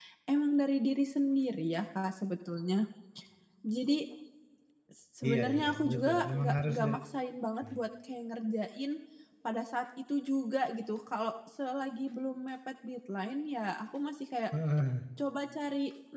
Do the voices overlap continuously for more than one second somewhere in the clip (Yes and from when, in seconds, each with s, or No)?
Yes, from 5.3 s